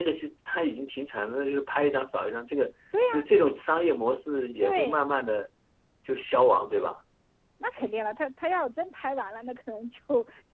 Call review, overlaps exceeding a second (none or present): none